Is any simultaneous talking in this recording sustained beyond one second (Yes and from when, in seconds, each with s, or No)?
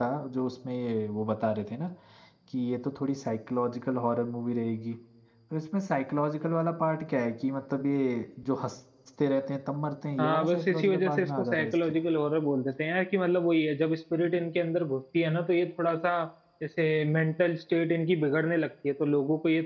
Yes, from 10.2 s